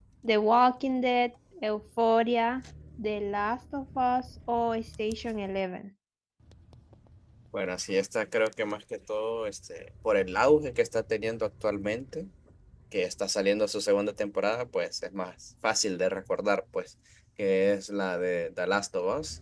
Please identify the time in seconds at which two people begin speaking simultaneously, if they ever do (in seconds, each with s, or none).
none